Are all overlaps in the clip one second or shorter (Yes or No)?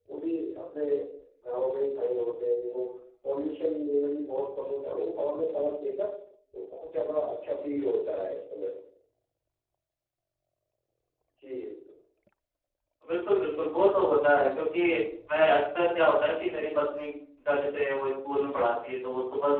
Yes